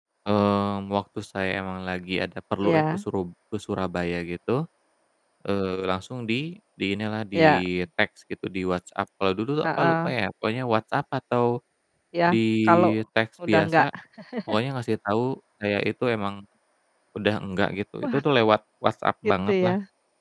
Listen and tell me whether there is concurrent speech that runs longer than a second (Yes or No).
No